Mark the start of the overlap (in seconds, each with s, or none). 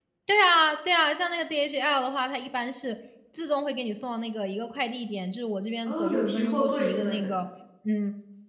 5.8 s